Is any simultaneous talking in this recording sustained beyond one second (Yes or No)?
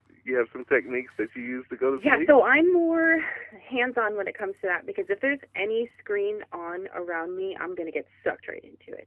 No